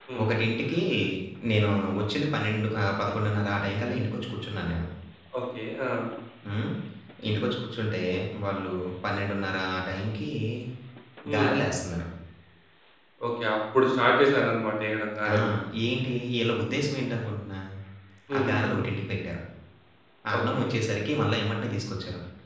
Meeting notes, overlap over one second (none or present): none